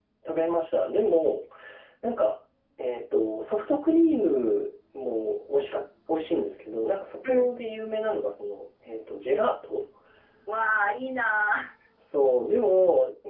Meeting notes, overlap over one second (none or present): none